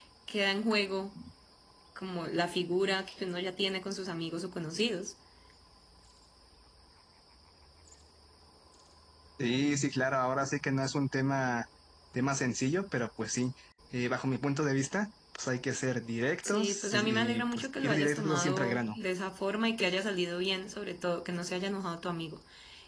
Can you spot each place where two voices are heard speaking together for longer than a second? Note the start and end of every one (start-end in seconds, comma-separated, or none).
16.5-18.9